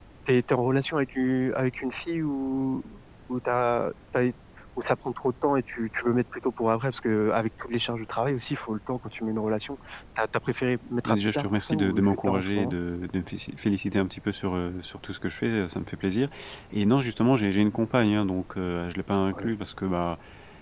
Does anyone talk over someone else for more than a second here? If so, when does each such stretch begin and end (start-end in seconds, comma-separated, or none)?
11.1-12.7